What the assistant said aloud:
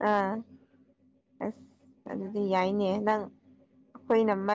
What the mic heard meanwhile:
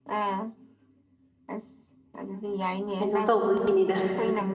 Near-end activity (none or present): present